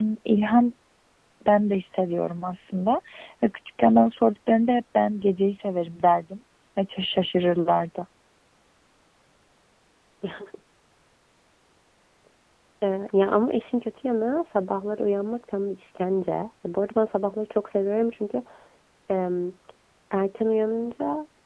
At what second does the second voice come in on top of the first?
none

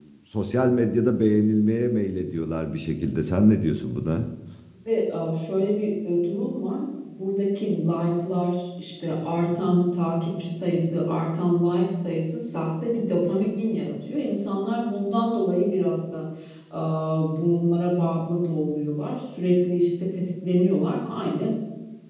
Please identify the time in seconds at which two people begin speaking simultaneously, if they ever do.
none

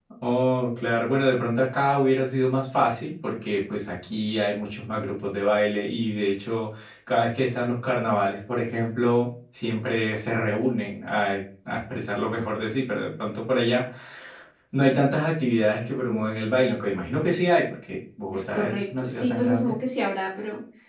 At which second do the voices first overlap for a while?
18.3 s

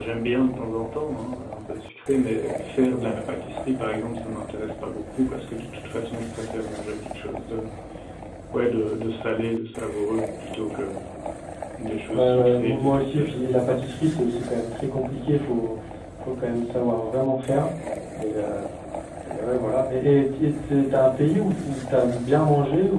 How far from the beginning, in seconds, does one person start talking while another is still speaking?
12.1 s

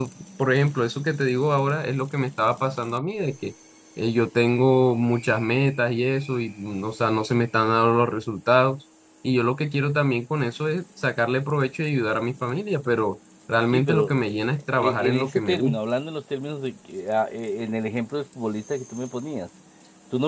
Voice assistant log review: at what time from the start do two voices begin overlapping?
13.7 s

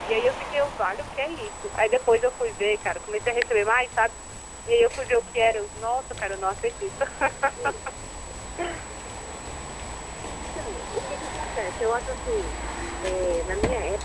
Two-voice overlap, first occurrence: none

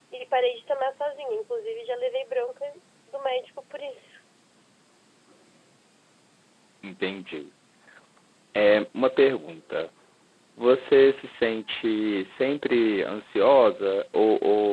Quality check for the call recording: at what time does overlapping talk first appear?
none

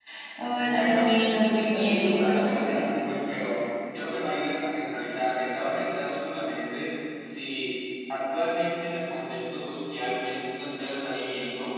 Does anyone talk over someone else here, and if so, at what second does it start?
0.6 s

